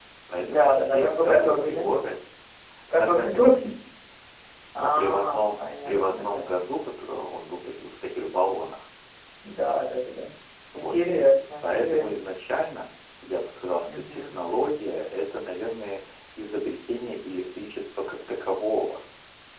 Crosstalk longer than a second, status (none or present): present